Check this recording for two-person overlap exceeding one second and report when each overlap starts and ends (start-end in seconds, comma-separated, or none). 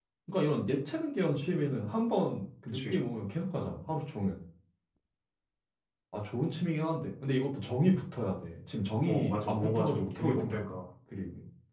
9.1-10.8